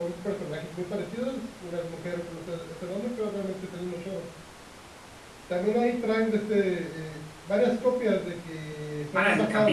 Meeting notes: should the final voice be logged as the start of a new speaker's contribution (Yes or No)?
Yes